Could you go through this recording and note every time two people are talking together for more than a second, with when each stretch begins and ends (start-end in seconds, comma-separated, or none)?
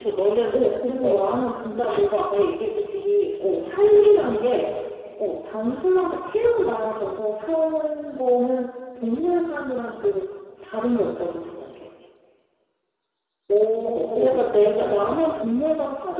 13.8-15.4